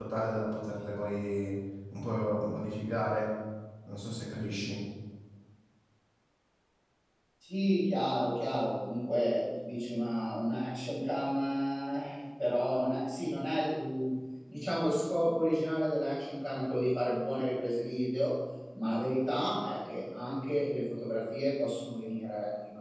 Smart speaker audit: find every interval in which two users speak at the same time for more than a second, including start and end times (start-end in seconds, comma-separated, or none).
none